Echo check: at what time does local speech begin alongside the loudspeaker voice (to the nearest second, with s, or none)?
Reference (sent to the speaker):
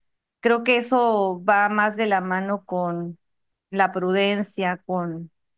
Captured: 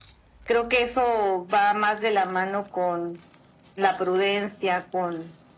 none